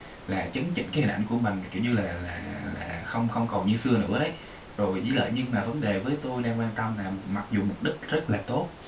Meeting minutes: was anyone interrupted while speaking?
No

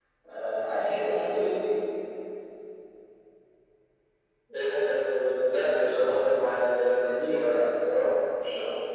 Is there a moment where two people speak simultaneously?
Yes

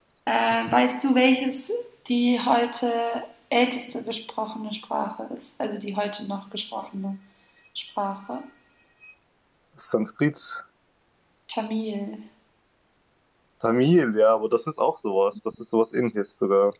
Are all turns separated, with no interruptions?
Yes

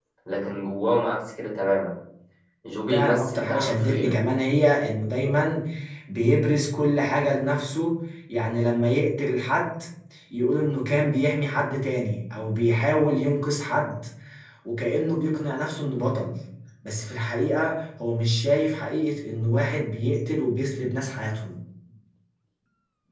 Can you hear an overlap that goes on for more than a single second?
Yes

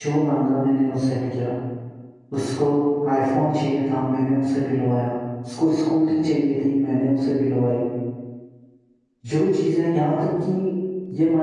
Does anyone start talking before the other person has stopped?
No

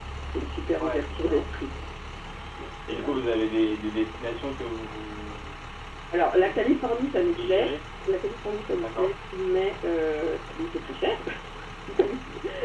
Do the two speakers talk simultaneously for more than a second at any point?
Yes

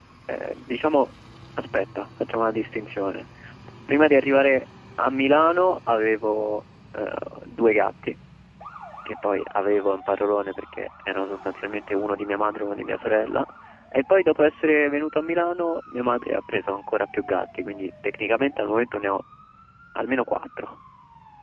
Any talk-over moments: No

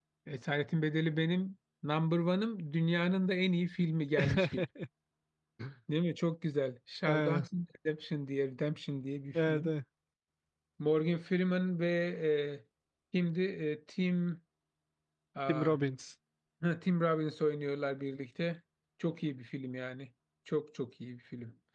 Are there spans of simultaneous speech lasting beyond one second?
No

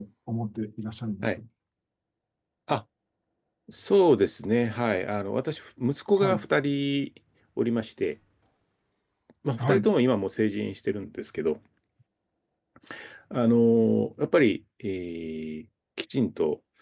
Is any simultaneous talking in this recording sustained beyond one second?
No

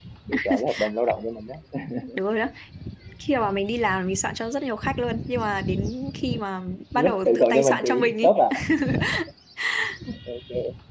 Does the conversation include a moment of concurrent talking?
Yes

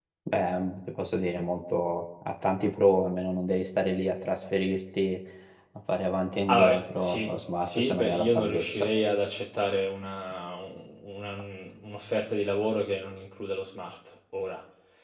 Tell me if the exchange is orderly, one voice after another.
No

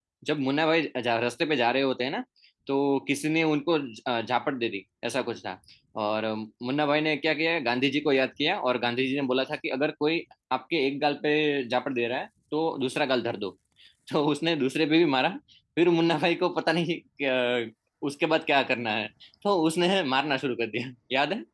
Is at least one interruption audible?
No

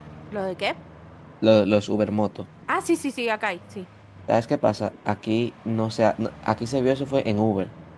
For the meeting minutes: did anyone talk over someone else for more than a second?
No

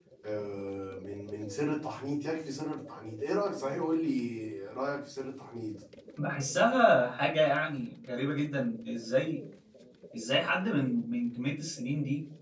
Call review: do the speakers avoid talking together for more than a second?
Yes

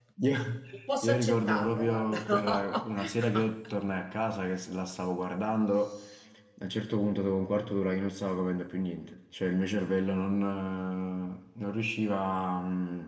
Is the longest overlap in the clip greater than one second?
Yes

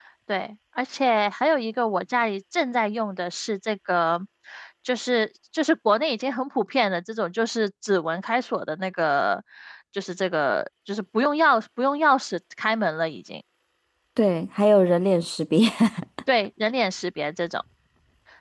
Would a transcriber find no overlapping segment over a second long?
Yes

